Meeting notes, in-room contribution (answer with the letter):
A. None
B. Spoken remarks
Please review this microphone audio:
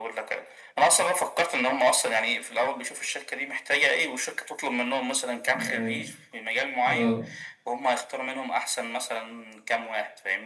B